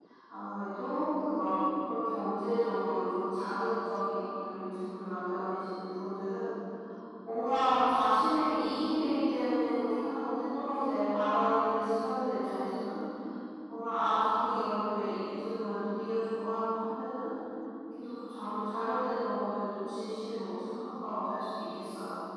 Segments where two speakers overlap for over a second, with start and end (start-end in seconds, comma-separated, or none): none